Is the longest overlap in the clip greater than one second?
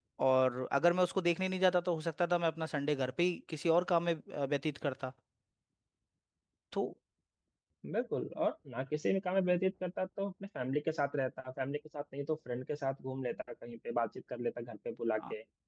No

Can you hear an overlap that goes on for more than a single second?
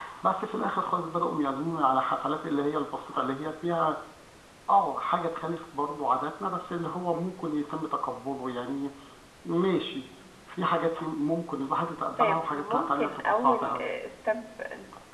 Yes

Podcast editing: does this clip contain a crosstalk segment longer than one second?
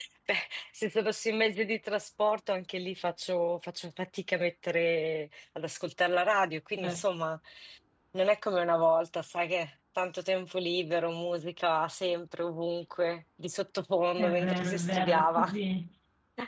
Yes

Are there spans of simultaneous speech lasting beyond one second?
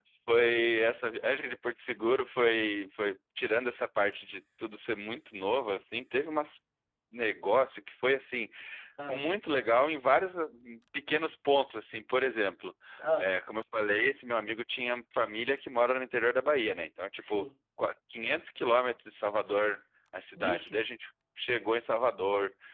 No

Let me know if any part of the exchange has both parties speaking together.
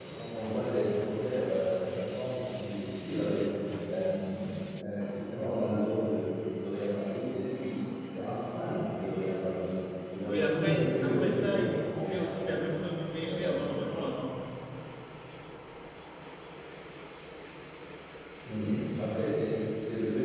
Yes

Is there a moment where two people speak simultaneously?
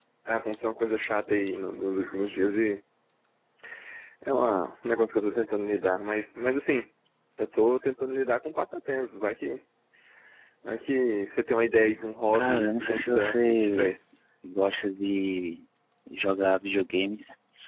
Yes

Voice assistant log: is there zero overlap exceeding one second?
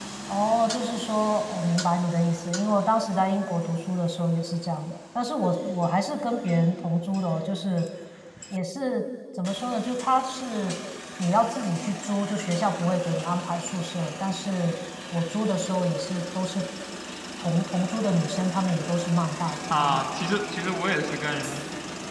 Yes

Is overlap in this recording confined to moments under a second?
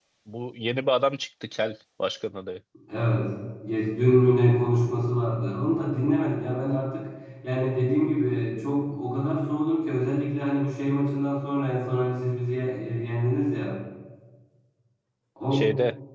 Yes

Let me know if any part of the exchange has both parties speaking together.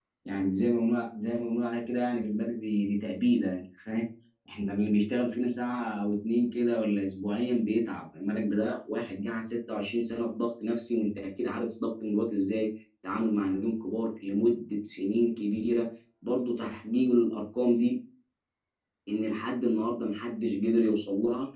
No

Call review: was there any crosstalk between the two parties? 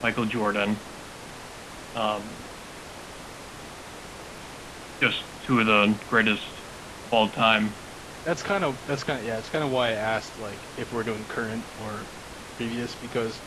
No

